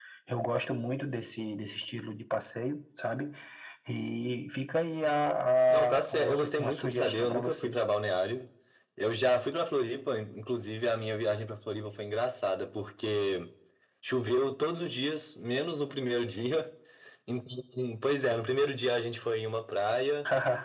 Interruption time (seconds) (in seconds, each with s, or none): 5.7 s